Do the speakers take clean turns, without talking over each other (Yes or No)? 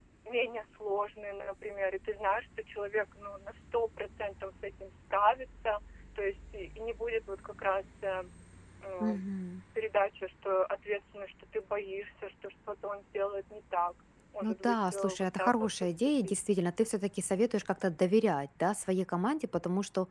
No